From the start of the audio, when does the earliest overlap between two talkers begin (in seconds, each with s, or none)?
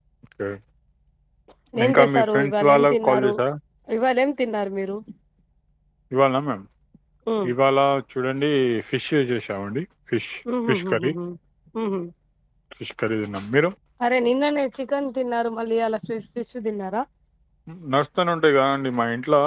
1.9 s